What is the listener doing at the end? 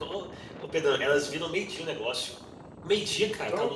listening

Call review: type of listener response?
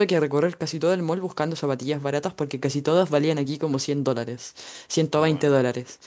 listening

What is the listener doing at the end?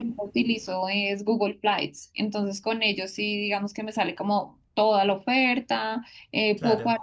listening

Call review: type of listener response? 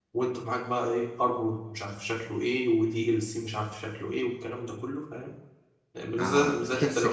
taking over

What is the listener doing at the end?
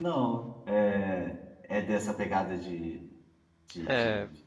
taking over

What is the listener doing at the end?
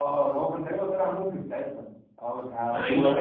taking over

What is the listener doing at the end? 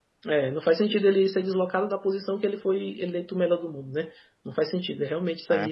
listening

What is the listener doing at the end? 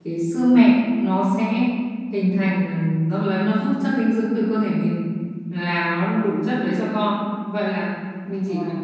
listening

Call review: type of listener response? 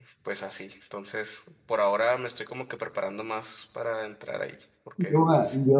taking over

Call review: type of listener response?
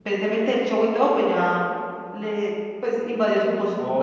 taking over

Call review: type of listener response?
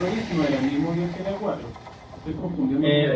taking over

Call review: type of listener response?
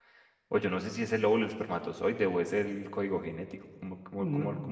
taking over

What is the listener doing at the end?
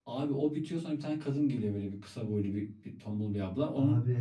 taking over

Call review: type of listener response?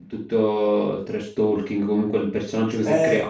taking over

